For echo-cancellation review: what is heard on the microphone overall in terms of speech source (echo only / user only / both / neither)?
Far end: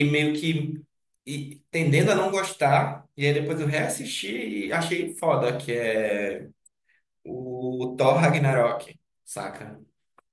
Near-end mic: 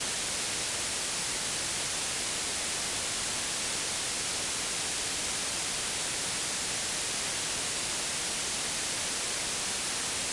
neither